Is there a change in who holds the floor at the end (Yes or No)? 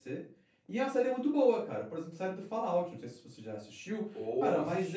No